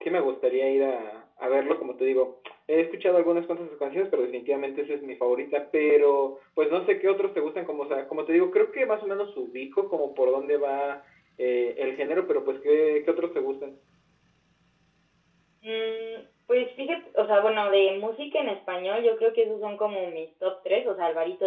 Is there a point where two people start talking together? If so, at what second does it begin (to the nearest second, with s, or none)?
none